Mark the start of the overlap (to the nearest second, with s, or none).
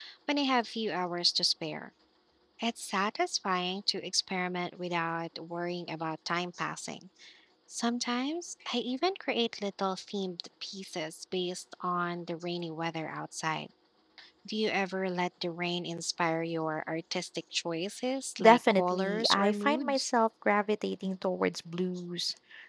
18 s